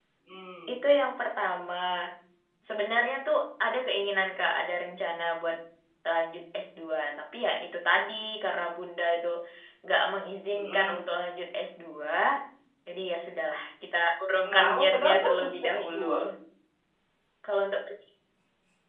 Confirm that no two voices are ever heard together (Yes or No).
No